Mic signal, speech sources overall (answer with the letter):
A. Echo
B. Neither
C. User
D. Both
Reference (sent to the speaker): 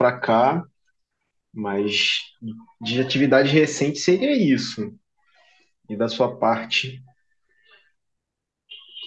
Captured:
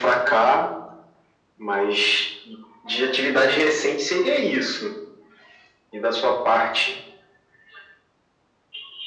A